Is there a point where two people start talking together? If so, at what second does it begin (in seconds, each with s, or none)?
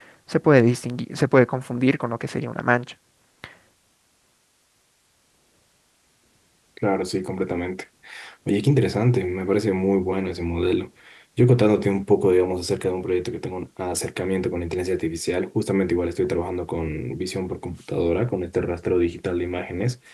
none